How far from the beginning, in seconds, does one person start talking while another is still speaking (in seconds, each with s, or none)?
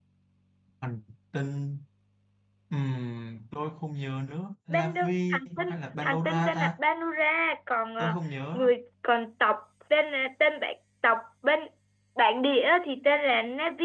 4.7 s